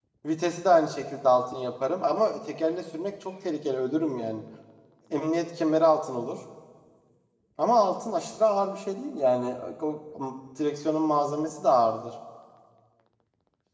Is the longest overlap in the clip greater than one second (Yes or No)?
No